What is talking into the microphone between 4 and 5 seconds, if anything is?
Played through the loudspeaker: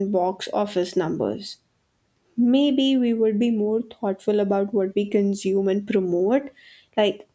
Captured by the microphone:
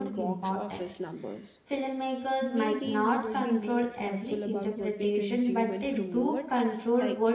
both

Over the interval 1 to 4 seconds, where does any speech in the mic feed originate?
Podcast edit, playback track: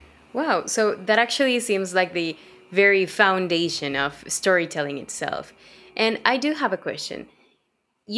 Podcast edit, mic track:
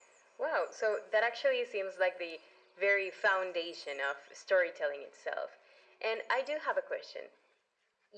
echo only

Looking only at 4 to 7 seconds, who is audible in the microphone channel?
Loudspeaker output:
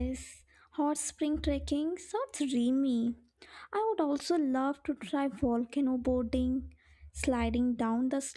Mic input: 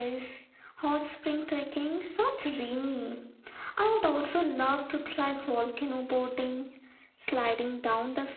echo only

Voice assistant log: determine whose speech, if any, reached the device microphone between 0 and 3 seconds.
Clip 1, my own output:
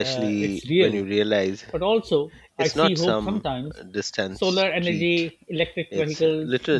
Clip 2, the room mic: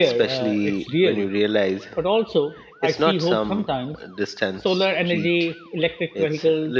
echo only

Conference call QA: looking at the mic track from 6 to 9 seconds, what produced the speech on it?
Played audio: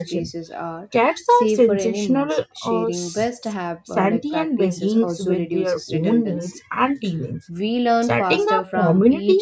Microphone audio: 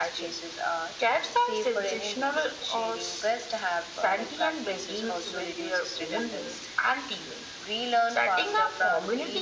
echo only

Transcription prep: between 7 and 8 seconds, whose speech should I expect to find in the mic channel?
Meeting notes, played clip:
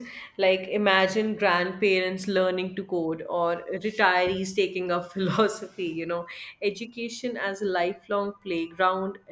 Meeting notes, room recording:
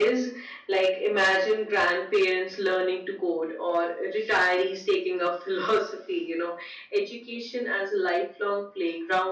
echo only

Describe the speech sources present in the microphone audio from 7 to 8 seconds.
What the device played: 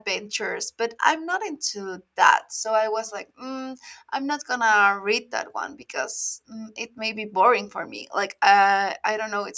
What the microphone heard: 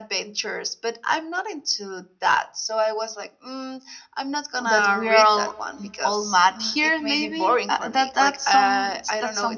both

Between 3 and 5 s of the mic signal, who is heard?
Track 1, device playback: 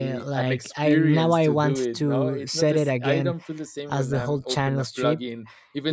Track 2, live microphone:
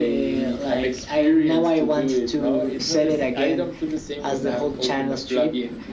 echo only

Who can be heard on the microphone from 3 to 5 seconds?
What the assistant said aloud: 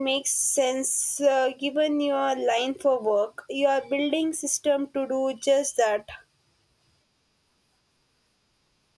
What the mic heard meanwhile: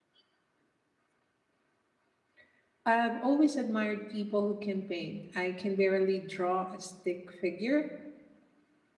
user only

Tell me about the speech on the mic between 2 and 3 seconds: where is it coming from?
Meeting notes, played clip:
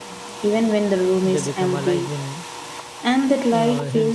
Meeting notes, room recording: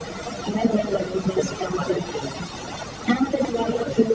echo only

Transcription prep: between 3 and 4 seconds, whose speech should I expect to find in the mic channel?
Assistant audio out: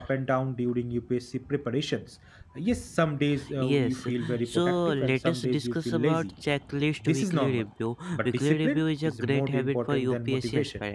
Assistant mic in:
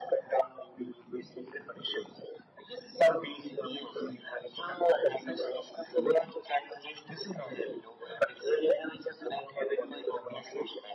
echo only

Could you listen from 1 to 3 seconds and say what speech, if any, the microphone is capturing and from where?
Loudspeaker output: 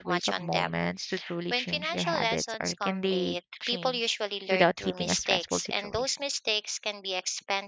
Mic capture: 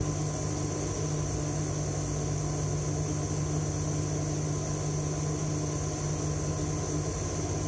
neither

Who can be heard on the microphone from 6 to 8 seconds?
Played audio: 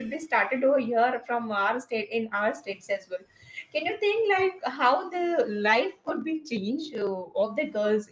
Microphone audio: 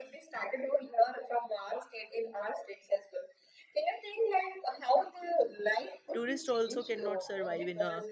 both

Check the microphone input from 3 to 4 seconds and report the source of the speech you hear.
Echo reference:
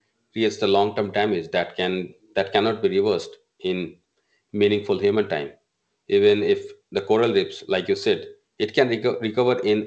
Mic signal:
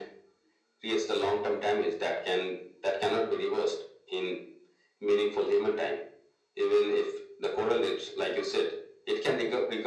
echo only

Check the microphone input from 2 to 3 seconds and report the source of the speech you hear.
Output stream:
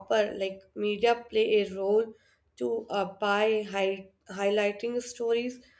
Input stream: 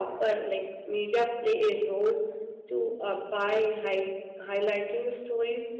echo only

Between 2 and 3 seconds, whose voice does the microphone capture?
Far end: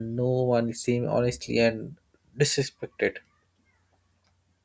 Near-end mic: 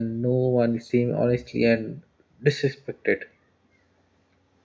echo only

